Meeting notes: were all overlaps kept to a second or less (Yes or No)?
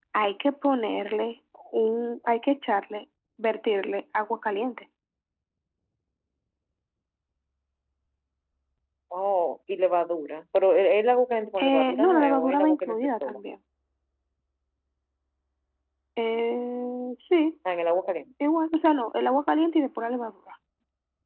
No